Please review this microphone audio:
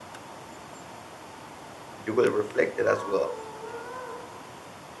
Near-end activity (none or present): present